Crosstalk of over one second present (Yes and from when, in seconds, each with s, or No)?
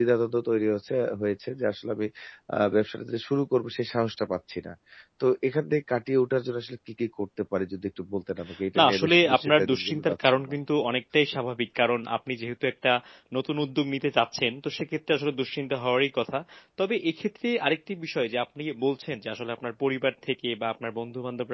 Yes, from 8.8 s